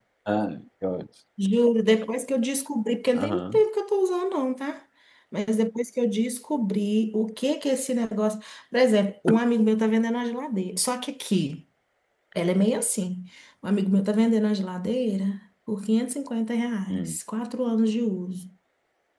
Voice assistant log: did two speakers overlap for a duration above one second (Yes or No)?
No